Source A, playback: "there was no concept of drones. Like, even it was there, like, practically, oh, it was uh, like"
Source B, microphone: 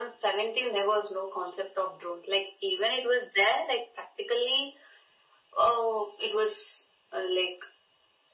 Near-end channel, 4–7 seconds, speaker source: echo only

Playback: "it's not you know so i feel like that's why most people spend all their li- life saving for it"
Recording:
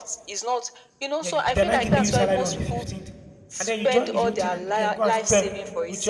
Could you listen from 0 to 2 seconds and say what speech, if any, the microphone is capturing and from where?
both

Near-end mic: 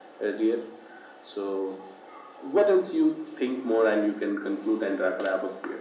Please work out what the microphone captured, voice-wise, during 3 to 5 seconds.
echo only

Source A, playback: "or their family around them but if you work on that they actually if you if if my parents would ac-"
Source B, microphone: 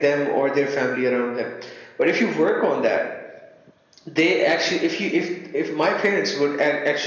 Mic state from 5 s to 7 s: echo only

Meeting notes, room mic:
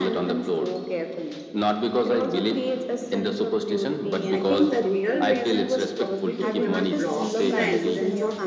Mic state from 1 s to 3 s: echo only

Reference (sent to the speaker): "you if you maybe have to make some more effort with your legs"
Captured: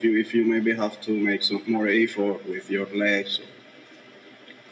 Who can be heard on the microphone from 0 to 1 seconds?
echo only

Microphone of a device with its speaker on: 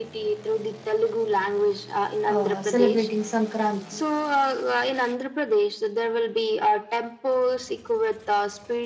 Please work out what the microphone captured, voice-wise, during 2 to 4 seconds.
both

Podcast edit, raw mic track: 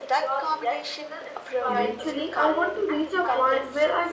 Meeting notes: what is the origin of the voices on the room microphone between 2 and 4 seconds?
both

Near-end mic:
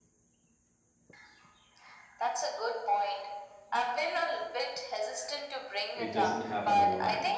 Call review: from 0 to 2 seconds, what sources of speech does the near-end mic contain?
neither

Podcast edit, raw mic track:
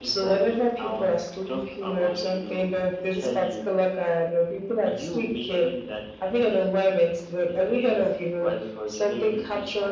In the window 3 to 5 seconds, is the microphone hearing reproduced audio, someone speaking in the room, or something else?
echo only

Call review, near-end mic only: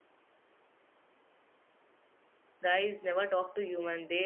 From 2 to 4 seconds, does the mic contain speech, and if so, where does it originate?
user only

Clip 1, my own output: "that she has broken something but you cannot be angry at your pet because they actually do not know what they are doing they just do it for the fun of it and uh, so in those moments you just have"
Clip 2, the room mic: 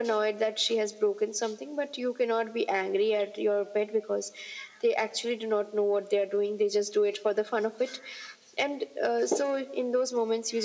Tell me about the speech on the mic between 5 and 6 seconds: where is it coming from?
echo only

